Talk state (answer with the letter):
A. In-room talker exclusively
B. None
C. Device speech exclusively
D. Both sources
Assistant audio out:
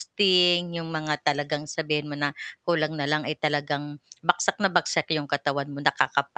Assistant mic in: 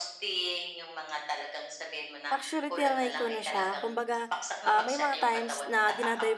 D